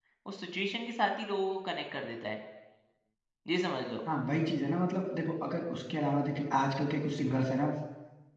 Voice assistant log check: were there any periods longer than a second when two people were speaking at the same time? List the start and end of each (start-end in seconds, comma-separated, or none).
none